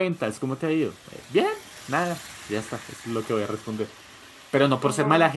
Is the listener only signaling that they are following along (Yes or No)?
Yes